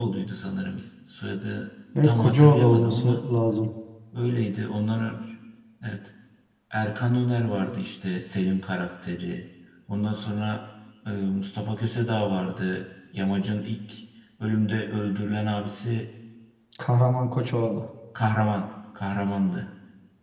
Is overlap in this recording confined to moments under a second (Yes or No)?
No